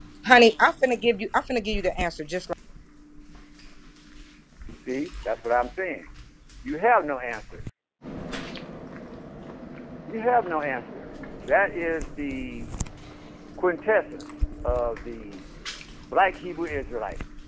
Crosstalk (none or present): none